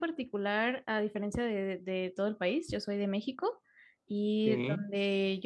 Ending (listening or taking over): listening